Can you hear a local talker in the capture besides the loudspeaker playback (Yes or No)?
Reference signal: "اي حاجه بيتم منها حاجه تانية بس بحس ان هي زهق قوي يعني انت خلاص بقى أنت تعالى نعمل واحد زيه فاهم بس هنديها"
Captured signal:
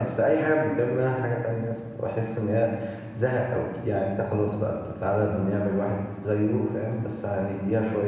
No